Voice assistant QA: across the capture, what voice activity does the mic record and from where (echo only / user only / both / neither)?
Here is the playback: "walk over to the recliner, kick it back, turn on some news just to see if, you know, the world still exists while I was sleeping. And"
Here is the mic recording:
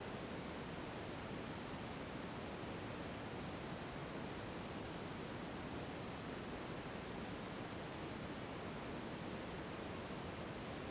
neither